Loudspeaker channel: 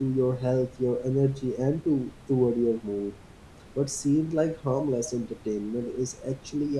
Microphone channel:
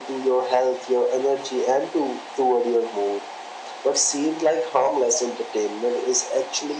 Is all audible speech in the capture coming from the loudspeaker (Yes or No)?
Yes